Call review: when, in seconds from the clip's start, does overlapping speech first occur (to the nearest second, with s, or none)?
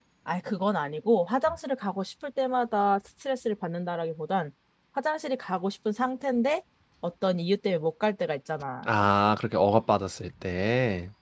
none